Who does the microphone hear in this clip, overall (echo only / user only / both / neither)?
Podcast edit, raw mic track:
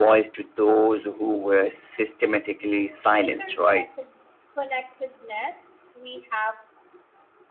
both